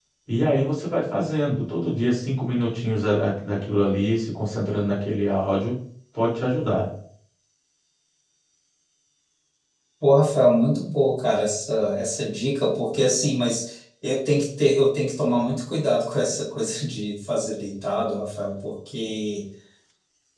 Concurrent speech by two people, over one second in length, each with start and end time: none

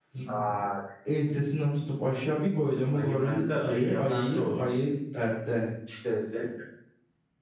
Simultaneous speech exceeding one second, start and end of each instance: 2.9-4.7

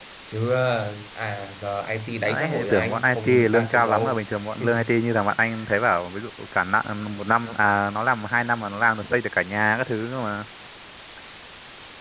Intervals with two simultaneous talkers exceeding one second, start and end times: 2.2-4.2

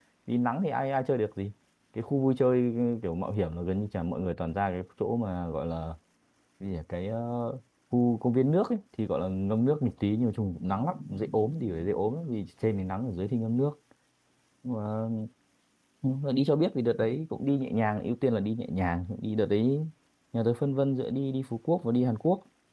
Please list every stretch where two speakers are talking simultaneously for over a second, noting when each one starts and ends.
none

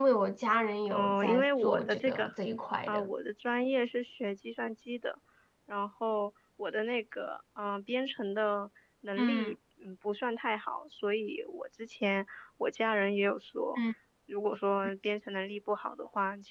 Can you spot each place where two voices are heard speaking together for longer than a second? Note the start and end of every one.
0.9-2.3

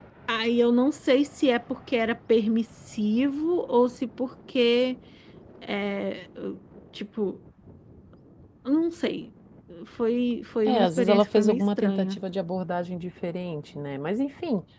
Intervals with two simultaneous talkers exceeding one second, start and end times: 10.6-12.2

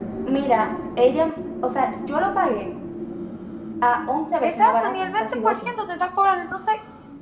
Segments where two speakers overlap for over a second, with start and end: 4.4-5.7

